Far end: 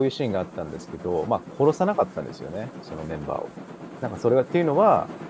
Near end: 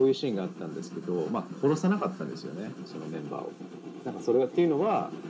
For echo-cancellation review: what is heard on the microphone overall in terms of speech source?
echo only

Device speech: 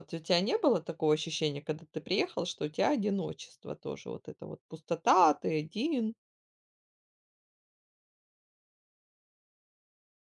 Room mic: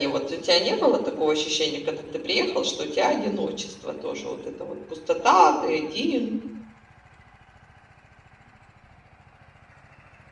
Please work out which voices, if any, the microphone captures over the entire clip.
echo only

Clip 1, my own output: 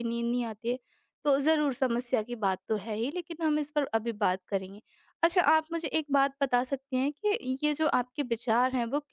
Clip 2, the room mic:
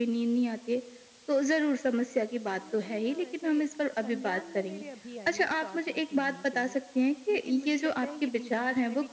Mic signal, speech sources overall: both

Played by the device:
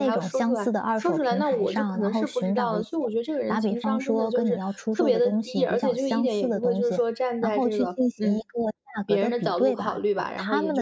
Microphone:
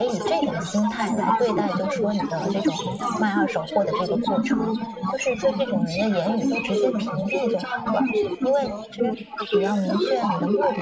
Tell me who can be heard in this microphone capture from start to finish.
both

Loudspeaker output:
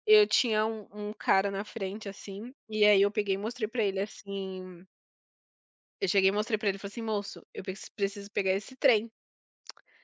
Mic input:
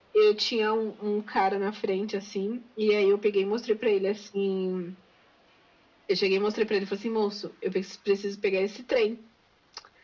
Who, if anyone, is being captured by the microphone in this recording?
echo only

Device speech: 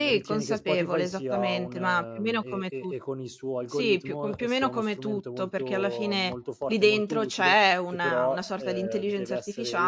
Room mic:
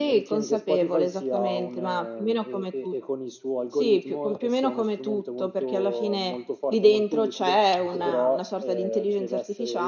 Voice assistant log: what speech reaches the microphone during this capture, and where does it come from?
both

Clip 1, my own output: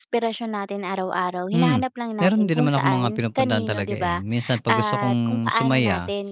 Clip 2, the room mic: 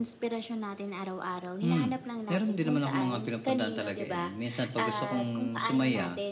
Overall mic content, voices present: echo only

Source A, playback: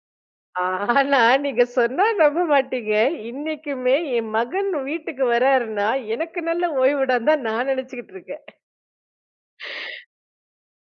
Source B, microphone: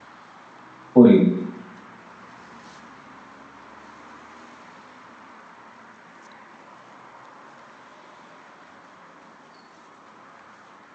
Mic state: user only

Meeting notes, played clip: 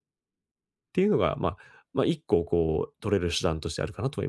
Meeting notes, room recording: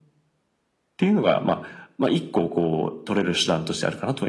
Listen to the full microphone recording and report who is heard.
echo only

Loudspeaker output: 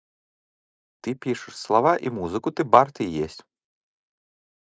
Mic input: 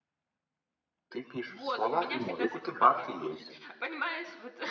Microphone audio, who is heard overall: both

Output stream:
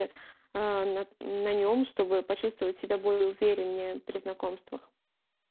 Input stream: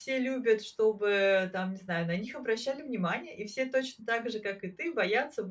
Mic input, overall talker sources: user only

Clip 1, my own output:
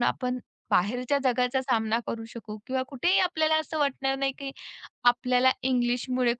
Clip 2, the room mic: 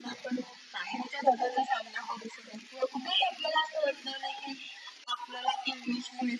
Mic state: echo only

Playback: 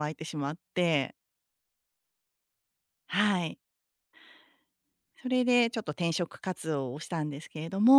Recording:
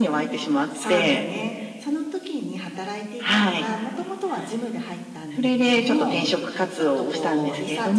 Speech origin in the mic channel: both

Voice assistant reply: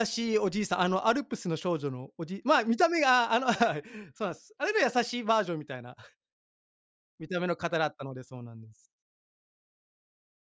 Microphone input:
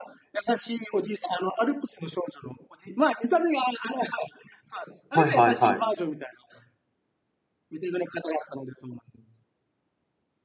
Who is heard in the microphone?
both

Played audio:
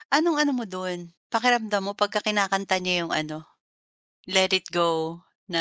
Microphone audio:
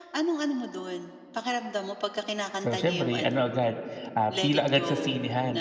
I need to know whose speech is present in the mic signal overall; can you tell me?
both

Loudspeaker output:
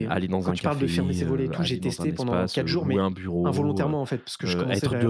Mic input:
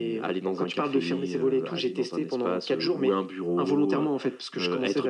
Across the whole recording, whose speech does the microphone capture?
echo only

